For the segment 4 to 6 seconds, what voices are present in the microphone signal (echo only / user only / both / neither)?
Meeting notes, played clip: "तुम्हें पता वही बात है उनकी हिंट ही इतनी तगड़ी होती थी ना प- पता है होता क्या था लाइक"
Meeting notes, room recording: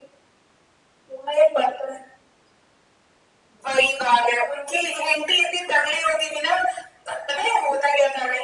echo only